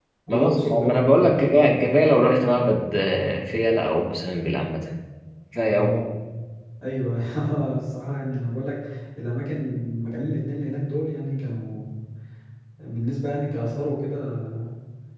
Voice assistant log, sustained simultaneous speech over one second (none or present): present